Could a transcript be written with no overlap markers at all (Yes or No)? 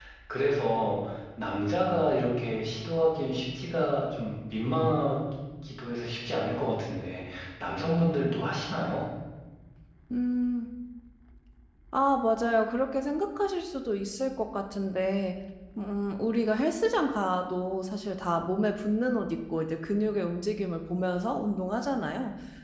Yes